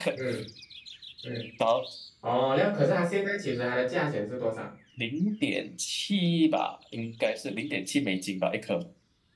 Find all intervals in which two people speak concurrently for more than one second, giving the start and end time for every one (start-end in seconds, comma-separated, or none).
none